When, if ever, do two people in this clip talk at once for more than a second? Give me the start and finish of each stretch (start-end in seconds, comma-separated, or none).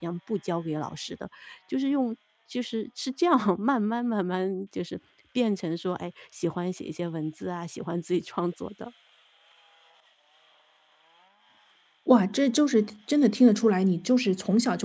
none